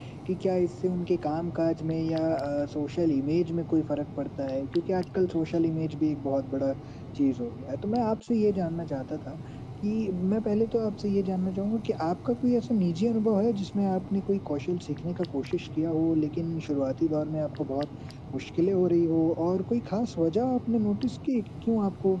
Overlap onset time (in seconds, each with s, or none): none